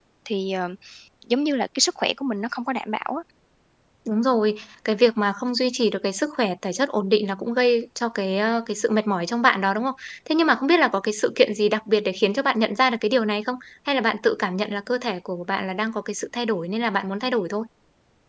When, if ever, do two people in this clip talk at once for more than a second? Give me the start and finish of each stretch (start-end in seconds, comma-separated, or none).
none